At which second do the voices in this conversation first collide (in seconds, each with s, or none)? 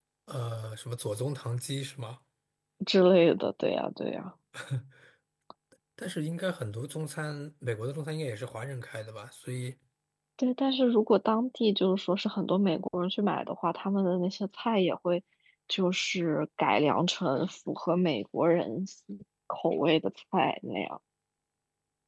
none